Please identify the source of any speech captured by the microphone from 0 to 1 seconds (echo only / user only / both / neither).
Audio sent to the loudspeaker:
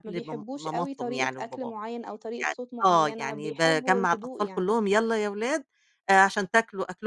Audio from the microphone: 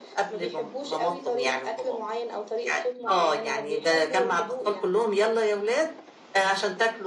echo only